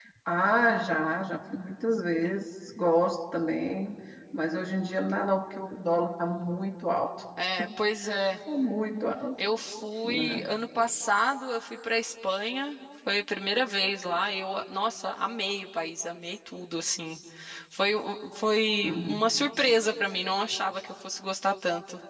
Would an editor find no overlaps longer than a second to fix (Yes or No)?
Yes